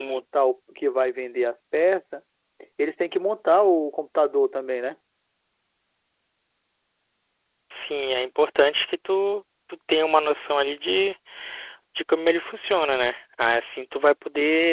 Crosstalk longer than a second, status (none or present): none